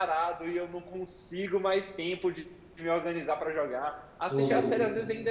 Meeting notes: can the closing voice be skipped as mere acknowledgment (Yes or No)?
Yes